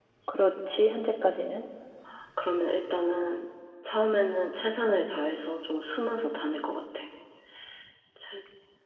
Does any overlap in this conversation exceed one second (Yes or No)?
No